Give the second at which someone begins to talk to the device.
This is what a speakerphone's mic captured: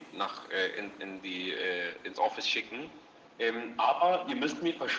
none

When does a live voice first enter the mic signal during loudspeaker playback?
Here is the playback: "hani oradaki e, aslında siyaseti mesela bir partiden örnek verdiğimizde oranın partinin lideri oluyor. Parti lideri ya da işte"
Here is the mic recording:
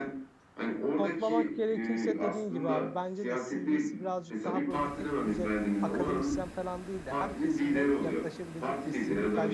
1.0 s

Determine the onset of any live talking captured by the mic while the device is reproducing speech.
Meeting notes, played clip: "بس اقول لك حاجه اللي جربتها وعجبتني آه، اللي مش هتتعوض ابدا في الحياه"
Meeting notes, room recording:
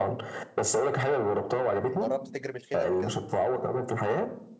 2.0 s

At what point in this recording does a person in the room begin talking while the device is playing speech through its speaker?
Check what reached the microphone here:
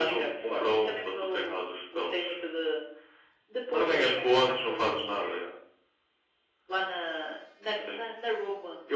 none

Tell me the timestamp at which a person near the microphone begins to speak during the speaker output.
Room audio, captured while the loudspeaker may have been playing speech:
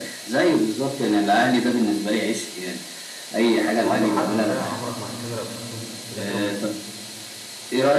3.8 s

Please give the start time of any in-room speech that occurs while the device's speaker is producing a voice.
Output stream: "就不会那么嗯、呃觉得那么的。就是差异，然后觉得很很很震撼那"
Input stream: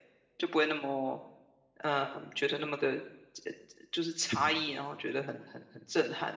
none

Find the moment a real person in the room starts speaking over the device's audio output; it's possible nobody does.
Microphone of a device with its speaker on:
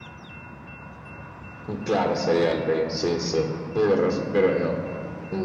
none

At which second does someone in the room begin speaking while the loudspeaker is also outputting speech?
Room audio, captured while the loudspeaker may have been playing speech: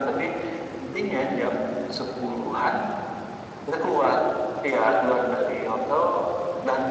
none

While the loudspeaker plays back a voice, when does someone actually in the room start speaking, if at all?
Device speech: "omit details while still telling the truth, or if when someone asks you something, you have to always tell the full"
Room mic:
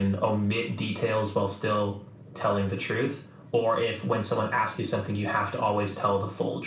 none

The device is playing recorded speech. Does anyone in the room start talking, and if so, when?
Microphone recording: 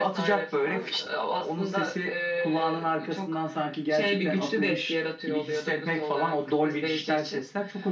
none

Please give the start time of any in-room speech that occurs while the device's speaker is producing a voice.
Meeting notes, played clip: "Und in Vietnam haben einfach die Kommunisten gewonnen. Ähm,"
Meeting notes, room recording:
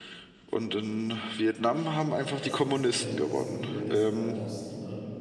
2.3 s

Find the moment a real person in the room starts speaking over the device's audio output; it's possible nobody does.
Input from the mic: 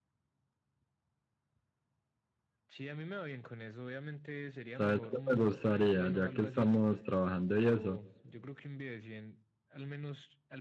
4.8 s

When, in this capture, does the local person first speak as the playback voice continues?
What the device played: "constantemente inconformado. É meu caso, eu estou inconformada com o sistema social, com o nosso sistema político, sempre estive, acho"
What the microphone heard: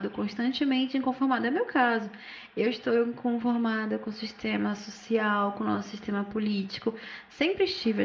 none

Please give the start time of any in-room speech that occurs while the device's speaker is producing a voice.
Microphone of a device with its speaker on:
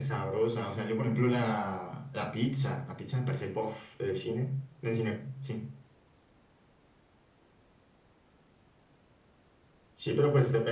none

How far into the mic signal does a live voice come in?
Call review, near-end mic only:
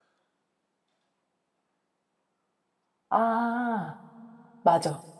3.1 s

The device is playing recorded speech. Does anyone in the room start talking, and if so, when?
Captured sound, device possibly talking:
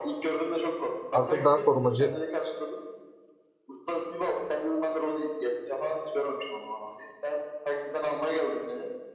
1.1 s

